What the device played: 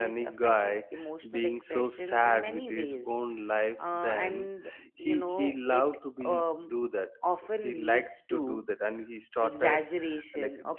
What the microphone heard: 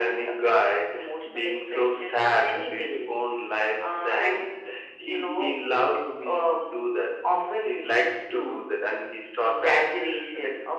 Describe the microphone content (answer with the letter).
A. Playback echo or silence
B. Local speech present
A